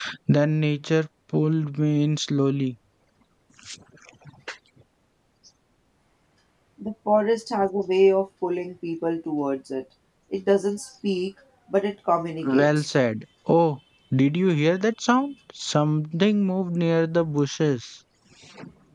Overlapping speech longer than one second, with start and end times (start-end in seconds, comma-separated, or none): none